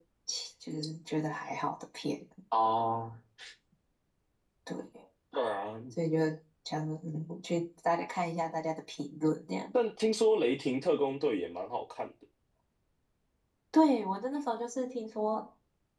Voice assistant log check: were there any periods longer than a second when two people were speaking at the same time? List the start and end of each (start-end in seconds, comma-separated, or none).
none